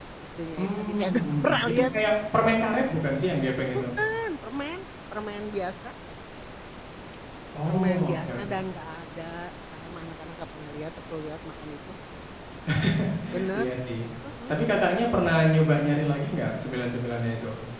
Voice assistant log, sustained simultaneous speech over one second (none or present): present